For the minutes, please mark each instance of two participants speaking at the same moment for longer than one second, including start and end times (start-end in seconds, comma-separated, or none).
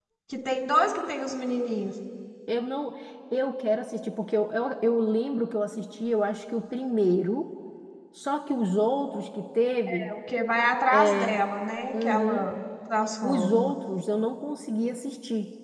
none